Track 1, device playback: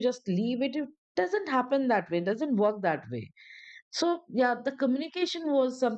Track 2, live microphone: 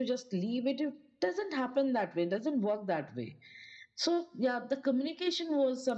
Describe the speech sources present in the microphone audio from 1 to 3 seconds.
echo only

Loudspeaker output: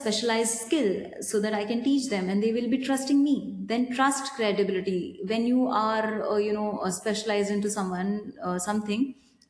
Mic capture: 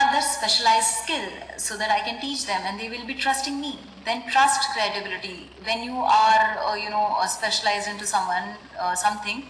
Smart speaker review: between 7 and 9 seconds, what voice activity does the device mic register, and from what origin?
echo only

